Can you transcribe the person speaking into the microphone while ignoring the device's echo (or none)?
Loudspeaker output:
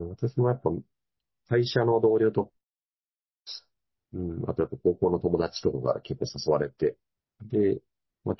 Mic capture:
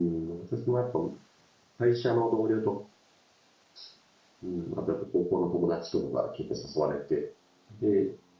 none